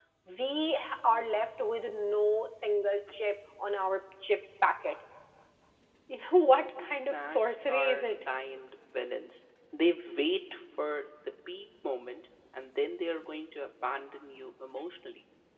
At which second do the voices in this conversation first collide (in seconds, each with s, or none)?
6.8 s